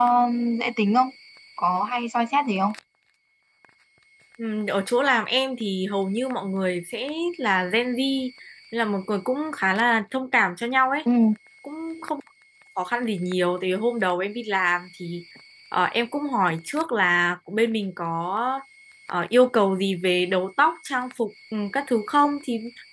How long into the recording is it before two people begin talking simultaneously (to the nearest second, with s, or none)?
none